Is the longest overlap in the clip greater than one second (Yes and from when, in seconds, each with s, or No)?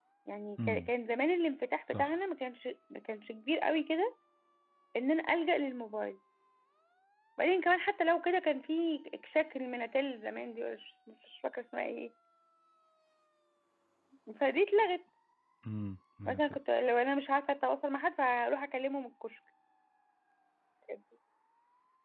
No